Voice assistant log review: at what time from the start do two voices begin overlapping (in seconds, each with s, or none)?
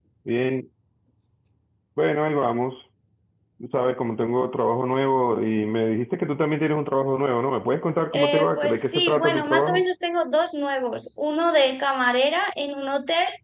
8.1 s